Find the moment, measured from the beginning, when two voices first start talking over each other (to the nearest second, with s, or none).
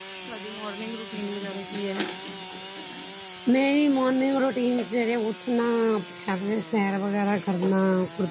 none